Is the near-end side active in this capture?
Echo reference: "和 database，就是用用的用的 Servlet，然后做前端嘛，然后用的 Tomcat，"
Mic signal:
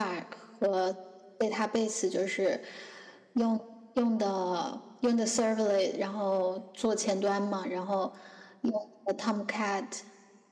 No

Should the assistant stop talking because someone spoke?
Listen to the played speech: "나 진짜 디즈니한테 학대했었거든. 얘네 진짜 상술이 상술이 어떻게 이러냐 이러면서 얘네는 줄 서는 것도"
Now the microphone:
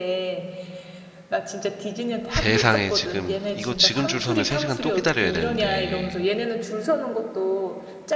Yes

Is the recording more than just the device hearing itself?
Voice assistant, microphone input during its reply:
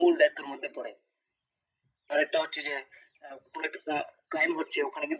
No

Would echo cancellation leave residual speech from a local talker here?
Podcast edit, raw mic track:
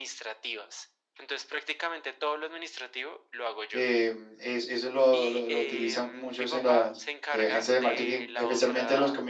Yes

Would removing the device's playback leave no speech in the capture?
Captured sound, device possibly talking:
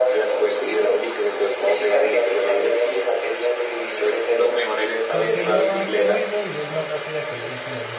No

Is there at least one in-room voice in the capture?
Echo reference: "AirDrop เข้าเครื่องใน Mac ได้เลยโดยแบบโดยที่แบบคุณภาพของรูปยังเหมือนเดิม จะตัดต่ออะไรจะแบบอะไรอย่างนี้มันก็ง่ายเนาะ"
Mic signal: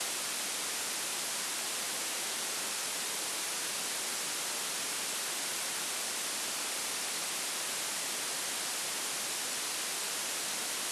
No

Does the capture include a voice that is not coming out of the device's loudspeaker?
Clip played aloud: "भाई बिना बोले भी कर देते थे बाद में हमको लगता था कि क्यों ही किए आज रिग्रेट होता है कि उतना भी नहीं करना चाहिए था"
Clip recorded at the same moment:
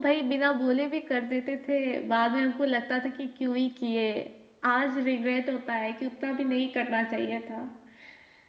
No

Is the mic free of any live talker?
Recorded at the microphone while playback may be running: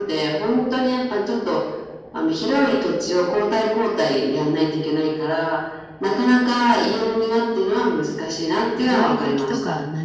No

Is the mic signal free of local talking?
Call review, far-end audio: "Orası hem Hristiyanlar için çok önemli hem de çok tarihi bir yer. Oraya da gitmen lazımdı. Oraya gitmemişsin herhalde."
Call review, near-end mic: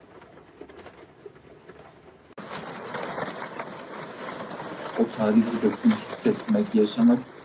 No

